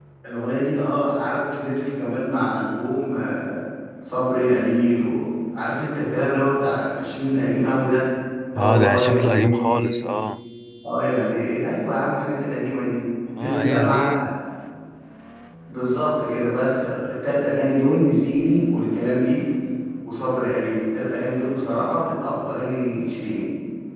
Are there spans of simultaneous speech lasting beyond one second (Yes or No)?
Yes